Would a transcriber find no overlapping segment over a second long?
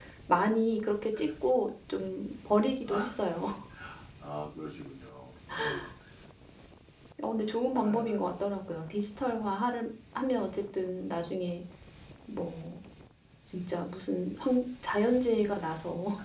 Yes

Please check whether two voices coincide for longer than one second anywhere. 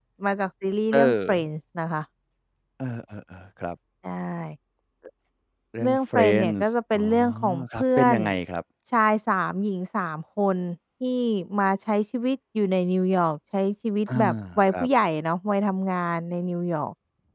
Yes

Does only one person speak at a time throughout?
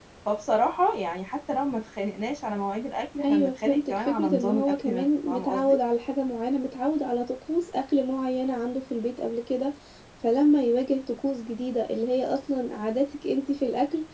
No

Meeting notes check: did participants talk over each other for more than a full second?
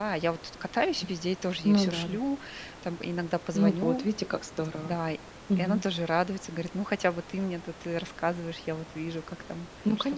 No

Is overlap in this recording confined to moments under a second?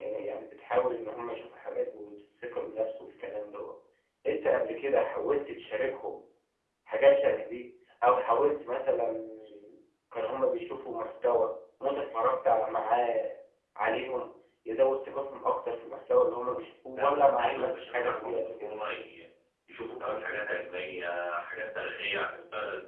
No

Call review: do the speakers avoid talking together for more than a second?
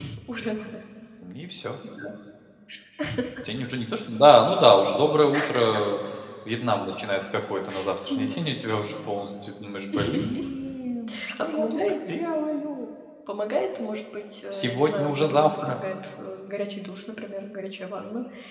No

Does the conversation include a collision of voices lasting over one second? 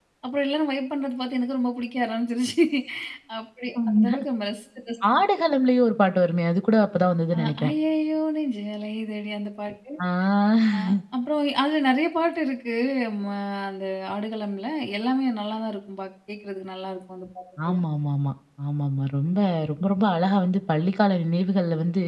No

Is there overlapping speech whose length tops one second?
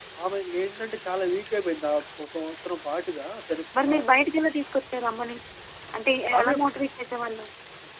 No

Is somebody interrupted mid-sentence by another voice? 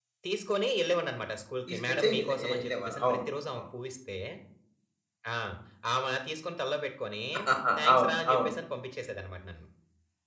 Yes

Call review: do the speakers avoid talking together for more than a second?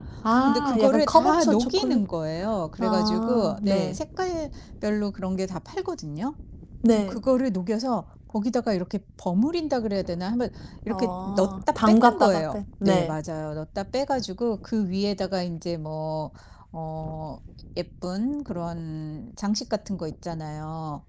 No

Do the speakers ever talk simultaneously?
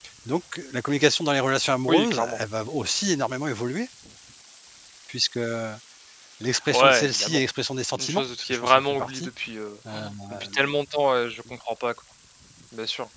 Yes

